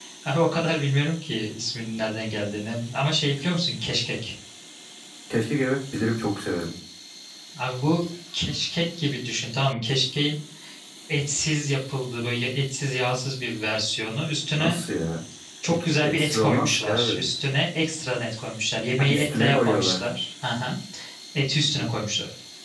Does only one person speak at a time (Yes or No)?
No